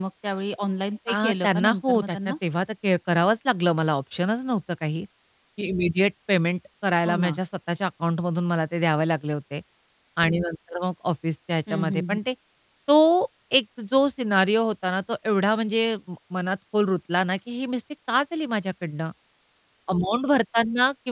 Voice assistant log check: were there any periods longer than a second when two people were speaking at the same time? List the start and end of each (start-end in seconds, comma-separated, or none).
1.1-2.4